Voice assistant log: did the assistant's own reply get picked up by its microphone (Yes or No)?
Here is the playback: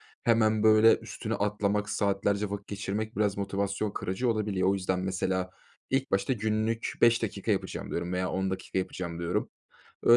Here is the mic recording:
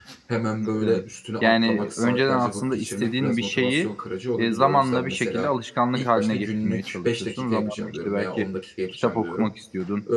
Yes